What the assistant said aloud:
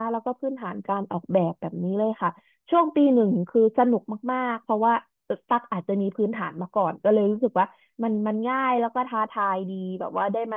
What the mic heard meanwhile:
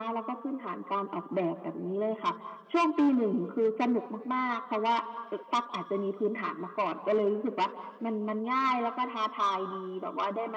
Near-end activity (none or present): none